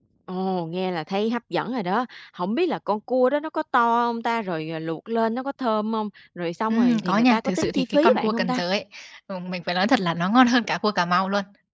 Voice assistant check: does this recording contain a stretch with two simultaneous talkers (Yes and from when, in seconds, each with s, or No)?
Yes, from 6.7 s